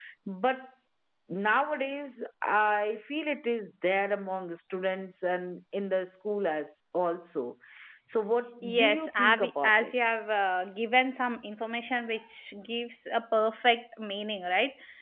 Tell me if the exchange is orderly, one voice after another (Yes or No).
No